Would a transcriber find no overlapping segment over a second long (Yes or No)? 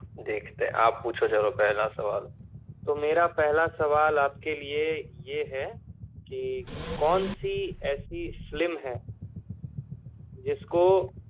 Yes